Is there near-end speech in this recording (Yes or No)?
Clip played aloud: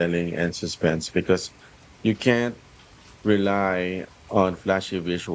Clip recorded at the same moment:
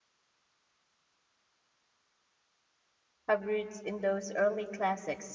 Yes